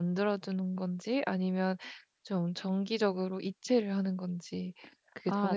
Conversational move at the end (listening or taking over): taking over